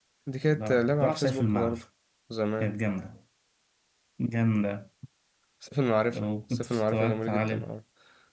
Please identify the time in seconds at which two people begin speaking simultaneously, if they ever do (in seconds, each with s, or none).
0.5 s